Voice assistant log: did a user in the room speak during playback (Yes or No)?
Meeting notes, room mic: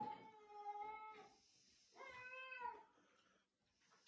No